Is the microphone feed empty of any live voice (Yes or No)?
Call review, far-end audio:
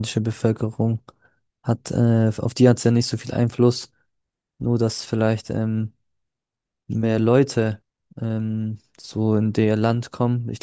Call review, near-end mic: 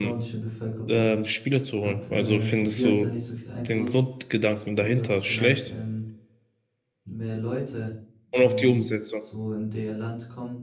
No